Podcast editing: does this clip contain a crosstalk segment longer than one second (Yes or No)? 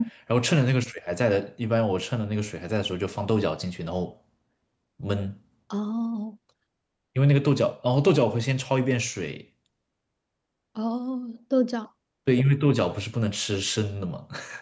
No